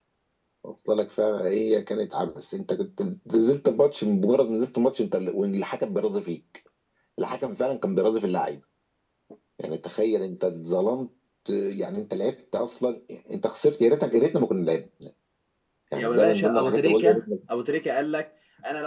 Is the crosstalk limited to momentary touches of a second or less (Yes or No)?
No